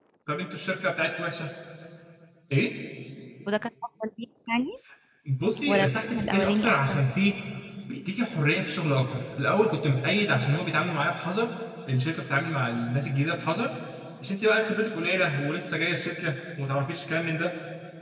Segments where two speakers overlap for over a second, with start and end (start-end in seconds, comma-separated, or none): 5.7-7.0